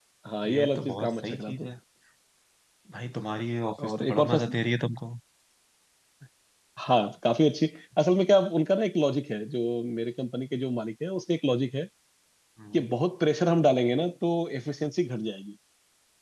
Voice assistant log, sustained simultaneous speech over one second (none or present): present